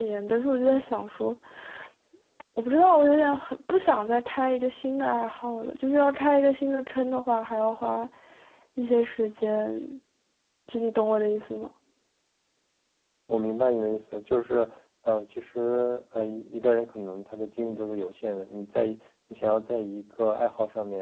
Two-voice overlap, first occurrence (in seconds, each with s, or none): none